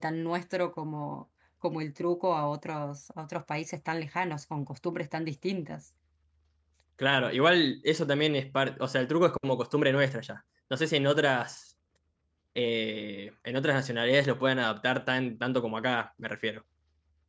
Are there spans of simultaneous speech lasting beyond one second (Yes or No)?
No